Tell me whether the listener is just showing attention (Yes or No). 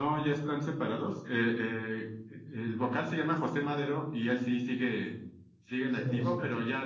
Yes